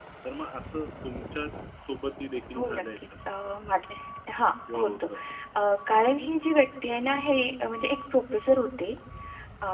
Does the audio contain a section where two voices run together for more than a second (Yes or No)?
No